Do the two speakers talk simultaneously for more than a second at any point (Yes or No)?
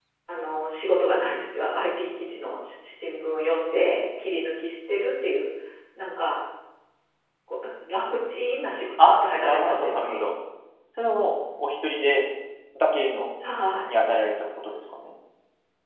Yes